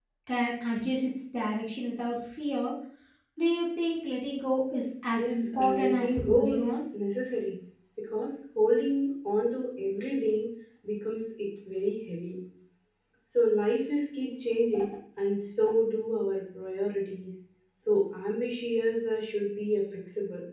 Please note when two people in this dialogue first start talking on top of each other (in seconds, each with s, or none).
5.2 s